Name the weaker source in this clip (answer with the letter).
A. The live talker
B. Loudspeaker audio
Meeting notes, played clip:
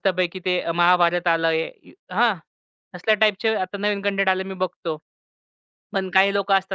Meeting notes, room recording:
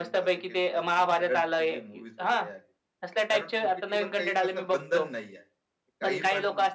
A